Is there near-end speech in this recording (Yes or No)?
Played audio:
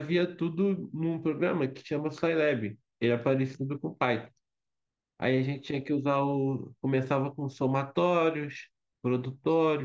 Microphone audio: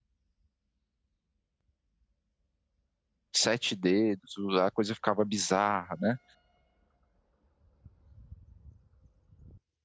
Yes